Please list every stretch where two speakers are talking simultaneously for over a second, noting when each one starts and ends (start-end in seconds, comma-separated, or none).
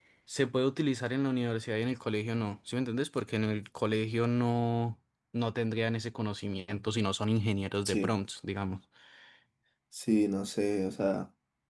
none